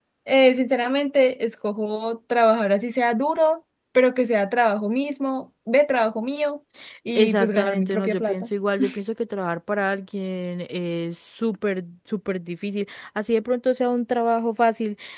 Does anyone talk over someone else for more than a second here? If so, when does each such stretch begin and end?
7.2-8.5

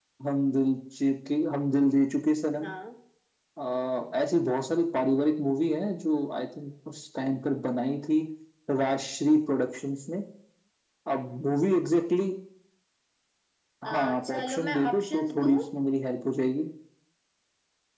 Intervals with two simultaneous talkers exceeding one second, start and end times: 13.9-15.6

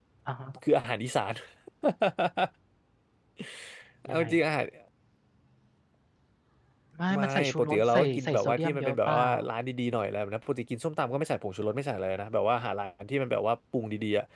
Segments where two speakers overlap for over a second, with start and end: 7.1-9.2

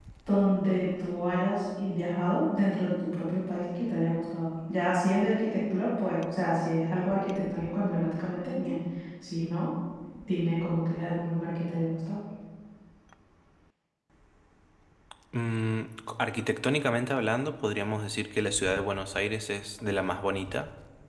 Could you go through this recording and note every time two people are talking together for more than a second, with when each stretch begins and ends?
none

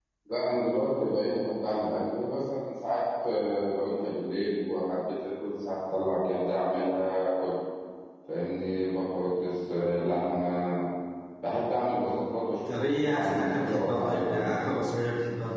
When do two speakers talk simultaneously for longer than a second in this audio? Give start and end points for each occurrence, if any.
12.9-14.5

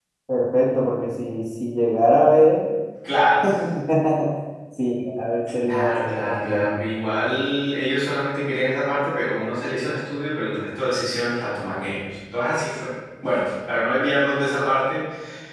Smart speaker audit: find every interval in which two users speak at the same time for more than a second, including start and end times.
5.5-6.8

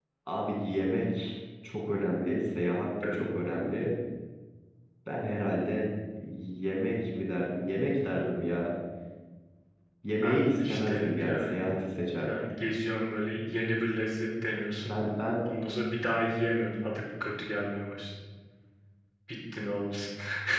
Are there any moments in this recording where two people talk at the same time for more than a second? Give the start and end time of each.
10.2-11.6

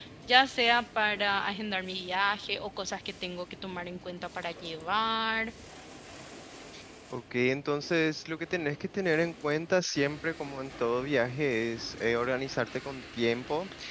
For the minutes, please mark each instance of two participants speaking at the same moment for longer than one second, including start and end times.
none

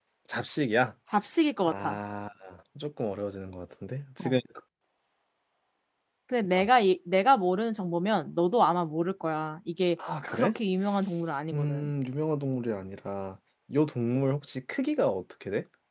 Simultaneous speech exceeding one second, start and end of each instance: none

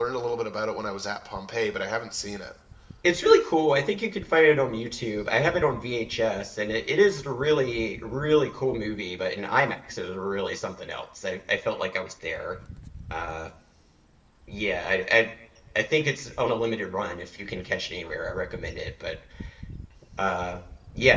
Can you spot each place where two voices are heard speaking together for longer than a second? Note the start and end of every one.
none

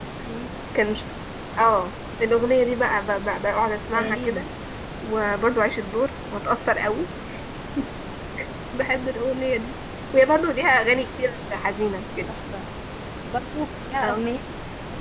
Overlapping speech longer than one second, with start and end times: none

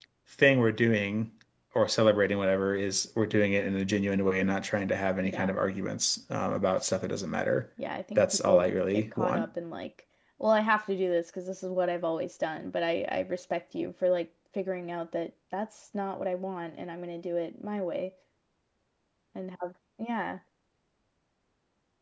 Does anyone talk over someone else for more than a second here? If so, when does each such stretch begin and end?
8.2-9.5

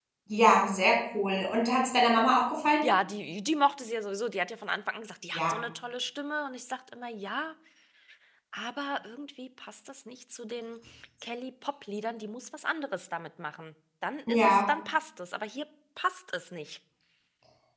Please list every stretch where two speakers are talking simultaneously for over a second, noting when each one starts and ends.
none

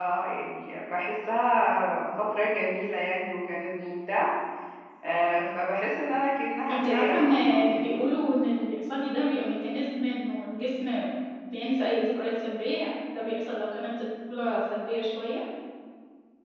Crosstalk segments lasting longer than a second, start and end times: 6.7-7.9

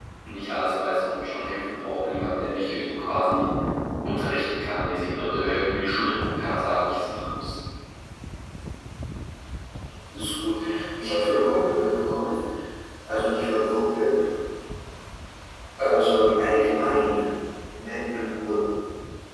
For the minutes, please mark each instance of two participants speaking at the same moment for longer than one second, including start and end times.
none

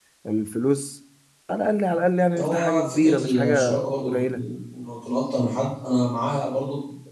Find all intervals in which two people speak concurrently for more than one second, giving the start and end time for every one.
2.4-4.4

